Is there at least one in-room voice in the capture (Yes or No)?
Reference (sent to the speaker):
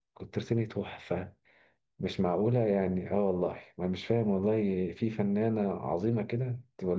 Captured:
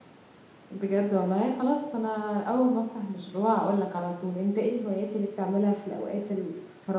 Yes